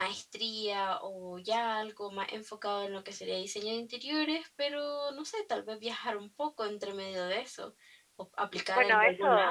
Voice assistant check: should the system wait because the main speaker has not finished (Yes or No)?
No